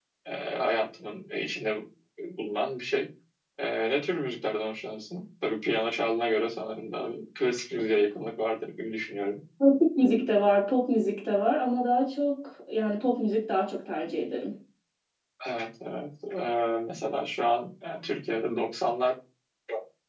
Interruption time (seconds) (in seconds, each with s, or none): none